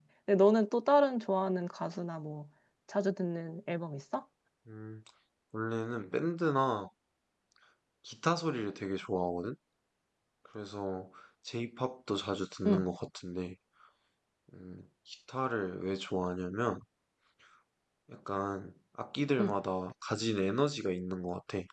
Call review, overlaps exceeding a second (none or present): none